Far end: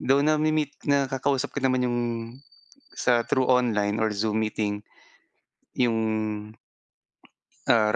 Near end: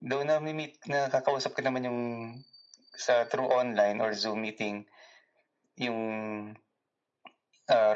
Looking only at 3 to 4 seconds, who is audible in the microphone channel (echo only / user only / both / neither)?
echo only